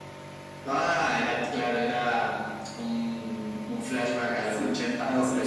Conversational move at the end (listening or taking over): taking over